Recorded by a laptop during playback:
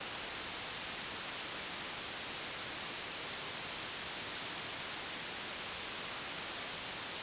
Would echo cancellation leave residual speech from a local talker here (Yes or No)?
No